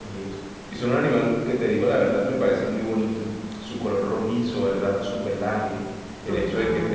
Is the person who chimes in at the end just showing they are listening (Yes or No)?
Yes